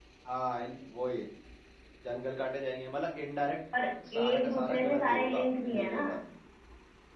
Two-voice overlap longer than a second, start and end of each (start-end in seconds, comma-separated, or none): 4.2-6.0